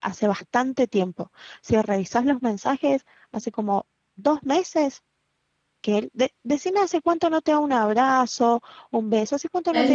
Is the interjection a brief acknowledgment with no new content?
No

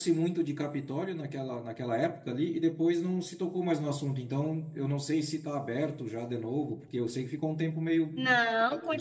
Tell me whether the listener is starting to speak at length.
Yes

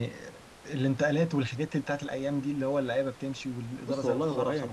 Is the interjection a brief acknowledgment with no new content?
No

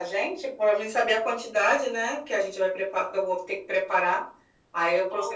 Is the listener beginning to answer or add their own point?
Yes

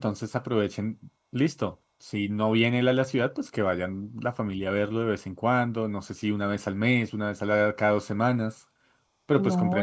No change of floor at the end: No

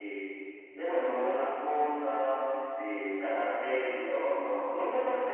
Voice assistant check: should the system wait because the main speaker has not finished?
No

